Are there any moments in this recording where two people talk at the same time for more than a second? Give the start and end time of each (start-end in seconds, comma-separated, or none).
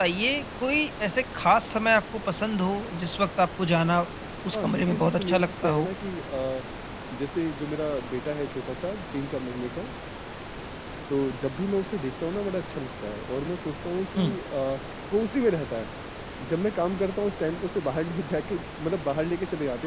4.5-5.9